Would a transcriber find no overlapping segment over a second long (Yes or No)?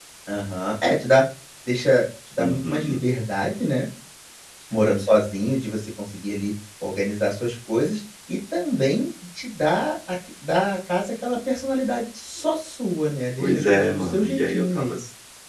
No